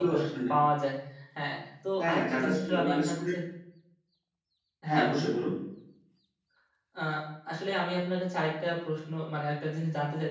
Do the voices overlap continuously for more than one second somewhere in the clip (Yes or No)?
Yes